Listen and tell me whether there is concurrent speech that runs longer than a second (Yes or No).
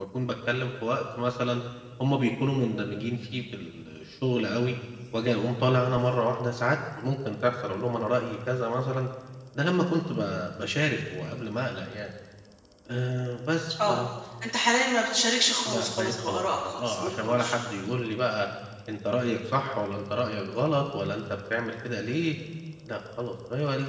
Yes